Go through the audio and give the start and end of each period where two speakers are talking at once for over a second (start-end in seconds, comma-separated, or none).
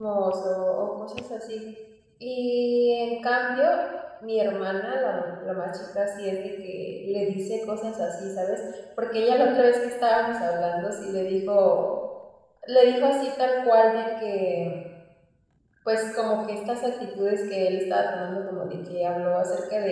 none